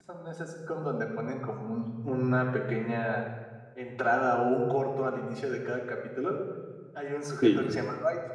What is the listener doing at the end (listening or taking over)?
listening